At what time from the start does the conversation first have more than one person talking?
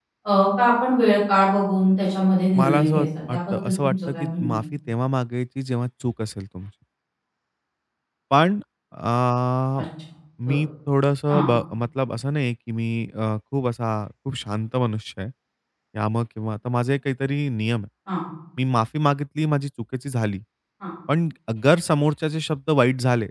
3 s

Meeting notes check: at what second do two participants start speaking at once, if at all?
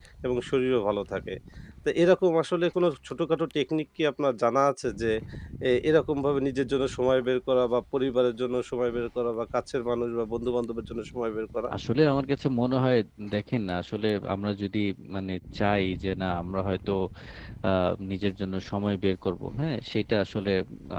none

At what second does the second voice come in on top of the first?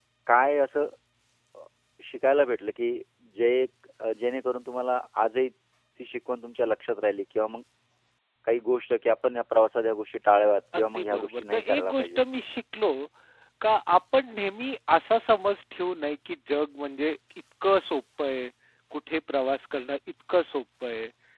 11 s

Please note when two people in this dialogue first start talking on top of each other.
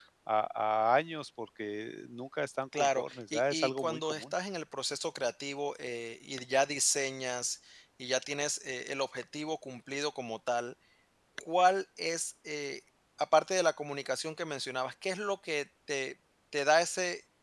3 s

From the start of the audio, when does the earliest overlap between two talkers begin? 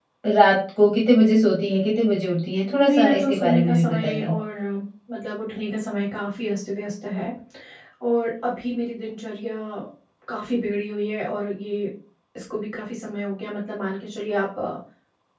3 s

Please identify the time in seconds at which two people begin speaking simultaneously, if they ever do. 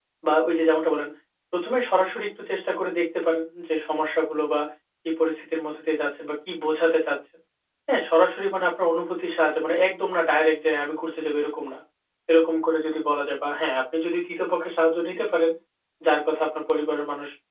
none

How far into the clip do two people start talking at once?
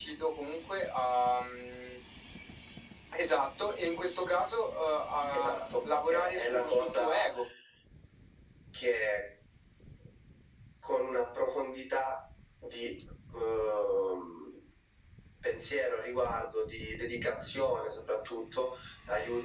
5 s

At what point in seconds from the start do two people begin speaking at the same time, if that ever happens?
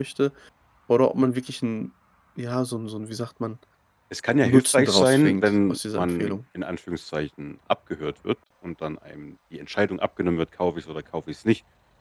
4 s

